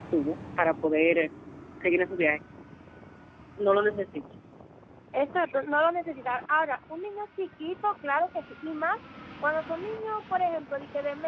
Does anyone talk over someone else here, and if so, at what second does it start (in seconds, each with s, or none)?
none